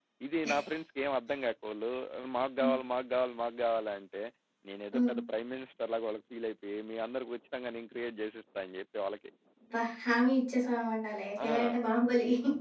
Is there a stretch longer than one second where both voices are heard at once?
No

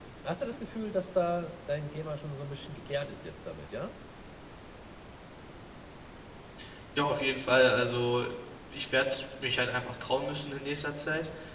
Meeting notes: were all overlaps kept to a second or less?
Yes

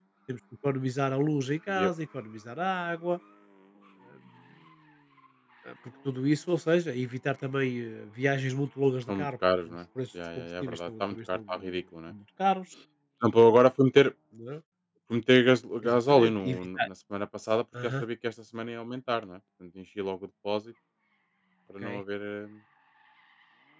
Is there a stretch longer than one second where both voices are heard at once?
Yes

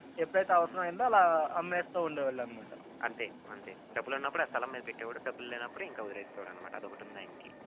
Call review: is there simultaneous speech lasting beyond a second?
No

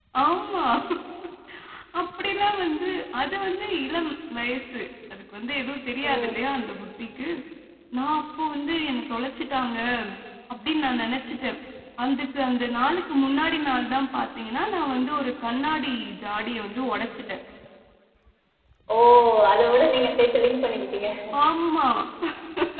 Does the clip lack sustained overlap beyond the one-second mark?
Yes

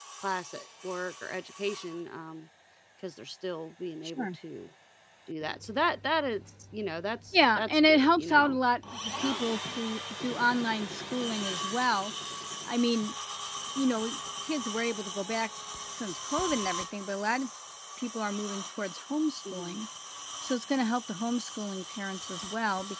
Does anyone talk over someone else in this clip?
Yes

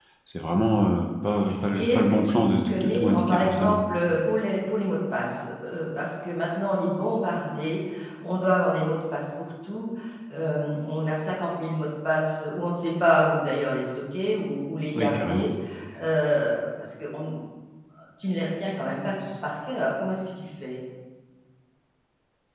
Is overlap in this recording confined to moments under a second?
No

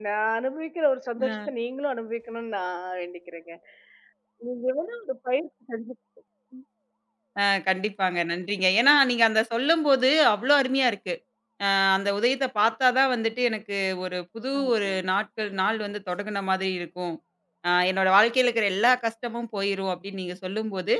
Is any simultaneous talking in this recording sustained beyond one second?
No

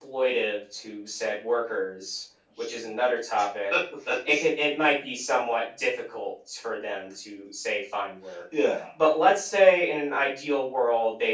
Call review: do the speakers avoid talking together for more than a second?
Yes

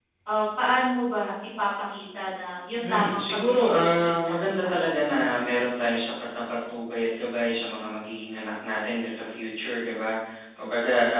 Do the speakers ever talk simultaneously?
Yes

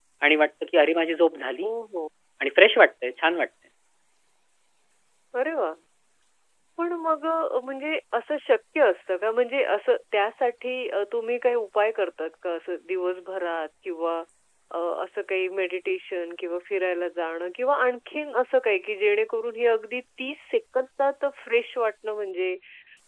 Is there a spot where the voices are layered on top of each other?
No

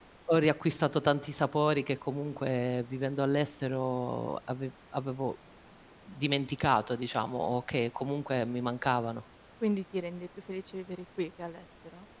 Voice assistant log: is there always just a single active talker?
Yes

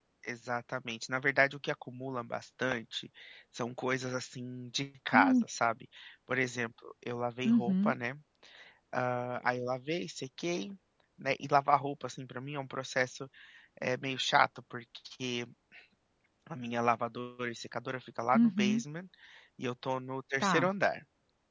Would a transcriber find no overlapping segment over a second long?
Yes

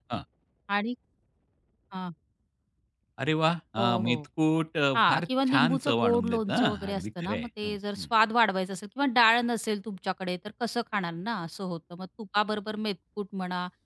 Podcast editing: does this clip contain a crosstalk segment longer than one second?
Yes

